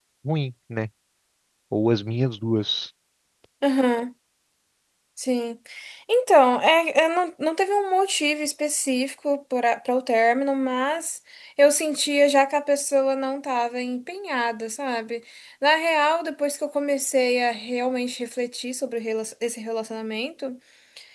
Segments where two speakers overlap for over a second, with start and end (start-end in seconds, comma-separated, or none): none